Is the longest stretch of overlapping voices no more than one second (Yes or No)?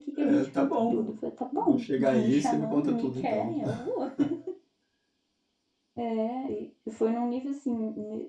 No